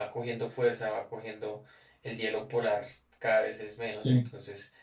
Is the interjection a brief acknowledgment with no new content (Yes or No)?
Yes